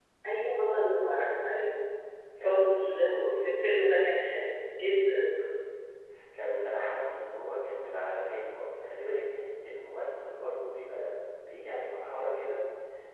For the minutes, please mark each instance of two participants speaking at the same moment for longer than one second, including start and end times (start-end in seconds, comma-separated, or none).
2.4-3.7